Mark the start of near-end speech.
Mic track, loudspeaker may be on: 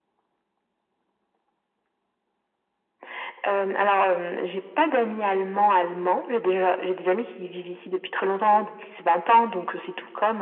none

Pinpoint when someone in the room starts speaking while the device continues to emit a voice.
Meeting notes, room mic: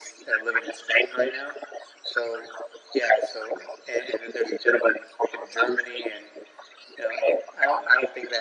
none

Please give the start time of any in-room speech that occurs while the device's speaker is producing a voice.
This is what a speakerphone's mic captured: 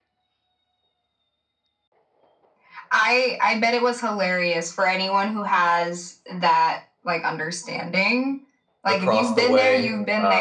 9 s

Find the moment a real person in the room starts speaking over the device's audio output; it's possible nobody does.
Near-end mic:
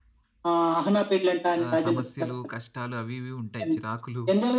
2 s

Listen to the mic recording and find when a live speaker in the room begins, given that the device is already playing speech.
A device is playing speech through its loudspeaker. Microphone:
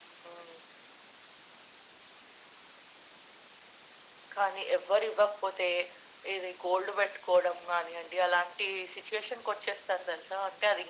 none

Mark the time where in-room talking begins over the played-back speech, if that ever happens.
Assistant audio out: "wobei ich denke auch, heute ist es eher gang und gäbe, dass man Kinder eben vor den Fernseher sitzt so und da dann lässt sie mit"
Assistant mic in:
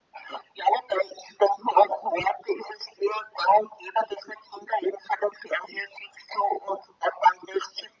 none

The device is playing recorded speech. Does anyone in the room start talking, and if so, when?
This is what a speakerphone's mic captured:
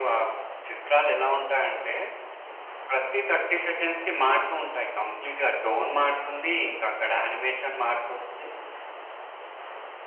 none

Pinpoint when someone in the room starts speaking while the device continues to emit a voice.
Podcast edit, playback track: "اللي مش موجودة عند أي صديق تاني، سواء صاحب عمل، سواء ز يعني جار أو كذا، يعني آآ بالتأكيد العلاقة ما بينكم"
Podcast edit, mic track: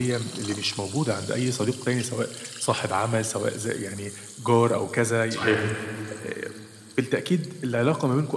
5 s

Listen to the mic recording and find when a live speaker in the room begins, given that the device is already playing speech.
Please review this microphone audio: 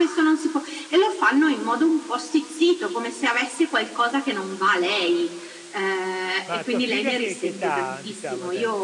6 s

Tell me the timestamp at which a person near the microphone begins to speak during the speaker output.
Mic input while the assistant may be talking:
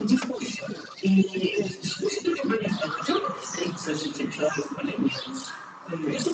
none

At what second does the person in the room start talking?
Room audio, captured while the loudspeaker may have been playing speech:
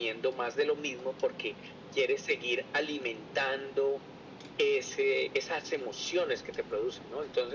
none

